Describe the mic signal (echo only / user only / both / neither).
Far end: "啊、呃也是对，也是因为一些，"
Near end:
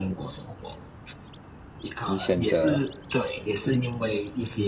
both